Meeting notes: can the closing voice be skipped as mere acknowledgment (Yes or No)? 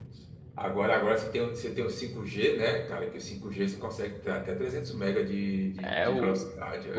No